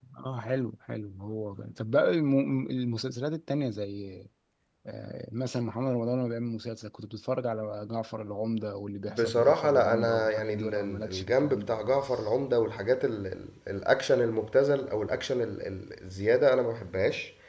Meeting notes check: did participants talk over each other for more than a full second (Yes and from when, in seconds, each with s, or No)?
Yes, from 9.1 s